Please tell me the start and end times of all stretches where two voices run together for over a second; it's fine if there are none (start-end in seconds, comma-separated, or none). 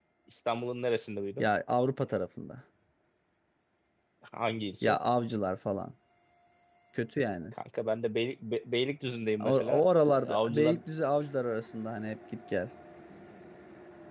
9.4-10.8